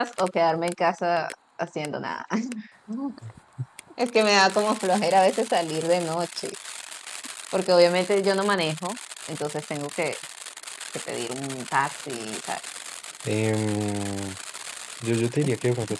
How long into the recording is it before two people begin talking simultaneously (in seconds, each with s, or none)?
none